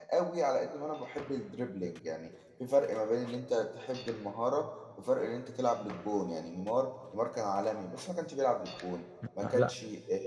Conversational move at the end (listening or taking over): listening